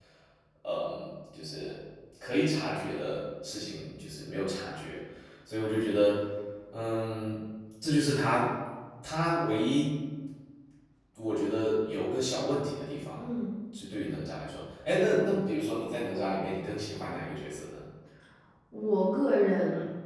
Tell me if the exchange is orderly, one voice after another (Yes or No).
Yes